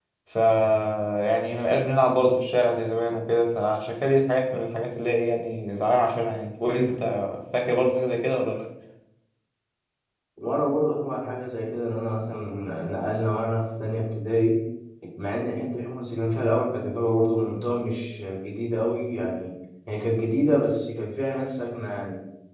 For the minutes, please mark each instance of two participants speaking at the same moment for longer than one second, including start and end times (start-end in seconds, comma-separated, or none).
none